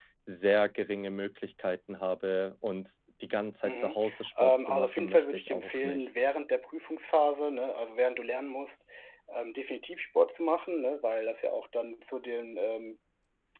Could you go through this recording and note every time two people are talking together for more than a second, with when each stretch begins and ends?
4.4-6.1

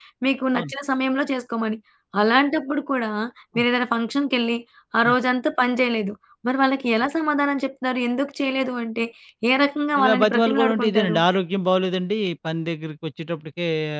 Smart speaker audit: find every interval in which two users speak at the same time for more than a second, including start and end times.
10.0-11.2

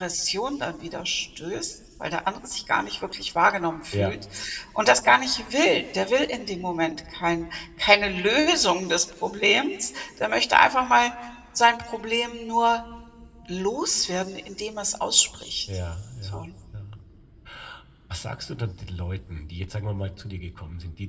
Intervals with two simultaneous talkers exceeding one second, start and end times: none

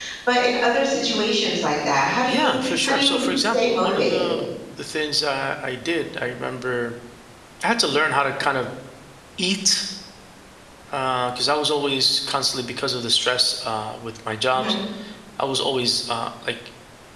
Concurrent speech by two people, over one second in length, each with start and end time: 2.3-4.2

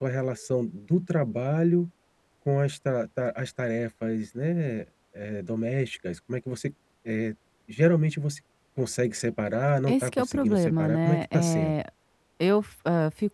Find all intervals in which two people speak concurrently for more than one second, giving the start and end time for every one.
9.9-11.7

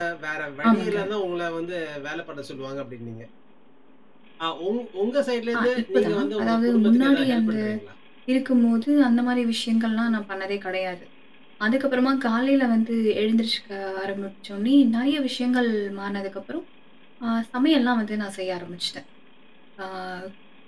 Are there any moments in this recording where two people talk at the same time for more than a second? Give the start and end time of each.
5.6-7.6

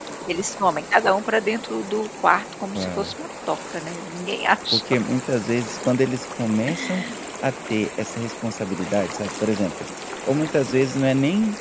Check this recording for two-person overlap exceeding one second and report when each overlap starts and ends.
none

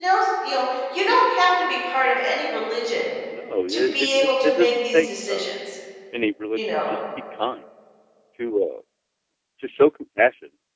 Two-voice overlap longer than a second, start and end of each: 3.7-5.5

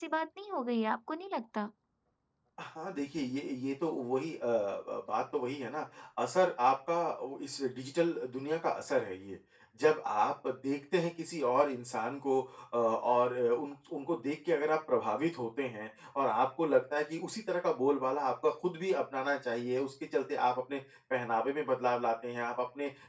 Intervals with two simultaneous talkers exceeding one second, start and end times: none

